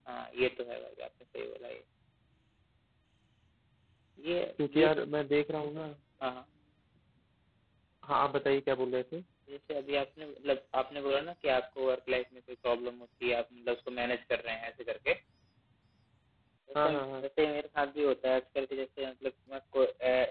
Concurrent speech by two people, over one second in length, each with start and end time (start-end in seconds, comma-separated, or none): none